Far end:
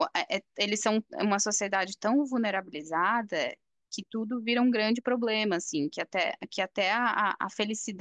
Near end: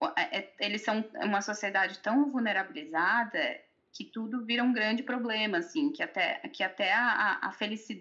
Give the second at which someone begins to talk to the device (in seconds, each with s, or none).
none